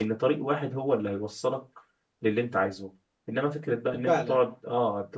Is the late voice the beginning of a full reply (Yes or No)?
No